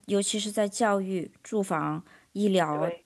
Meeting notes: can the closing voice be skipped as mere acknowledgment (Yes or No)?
Yes